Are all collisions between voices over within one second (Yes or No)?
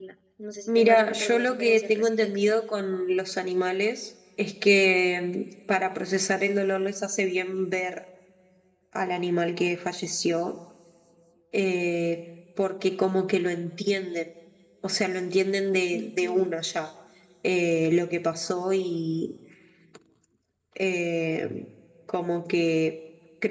No